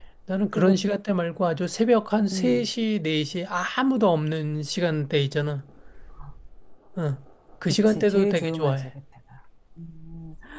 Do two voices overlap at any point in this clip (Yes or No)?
Yes